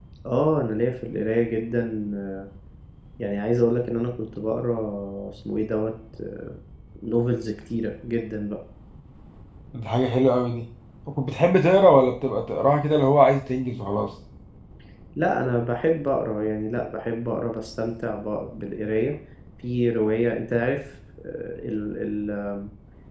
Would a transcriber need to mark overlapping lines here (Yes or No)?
No